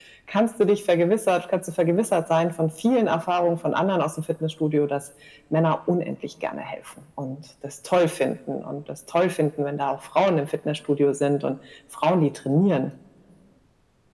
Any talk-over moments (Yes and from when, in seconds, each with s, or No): No